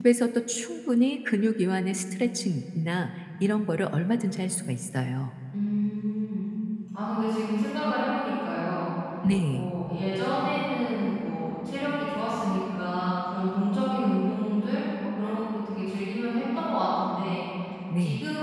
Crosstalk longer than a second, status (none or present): none